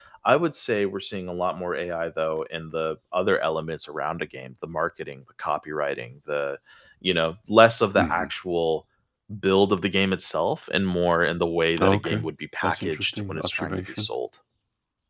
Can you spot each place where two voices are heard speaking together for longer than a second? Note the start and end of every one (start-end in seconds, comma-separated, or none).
12.6-14.1